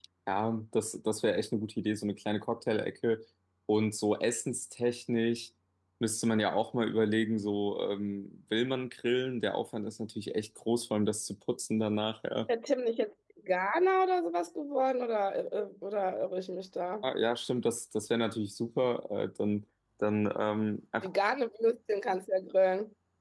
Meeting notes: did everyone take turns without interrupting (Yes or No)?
Yes